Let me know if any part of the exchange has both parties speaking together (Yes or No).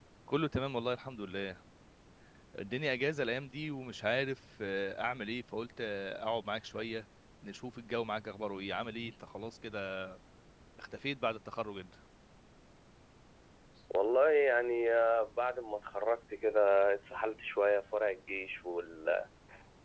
No